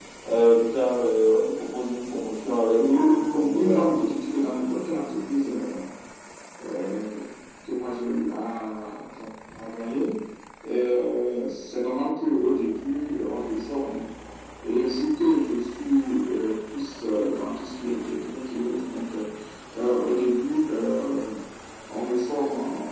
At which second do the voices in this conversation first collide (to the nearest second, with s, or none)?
3 s